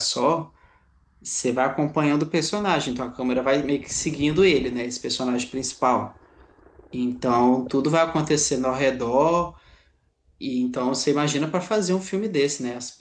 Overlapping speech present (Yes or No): No